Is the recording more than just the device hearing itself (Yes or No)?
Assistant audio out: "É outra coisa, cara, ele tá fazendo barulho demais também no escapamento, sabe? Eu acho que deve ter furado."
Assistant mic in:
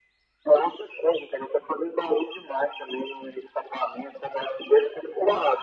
No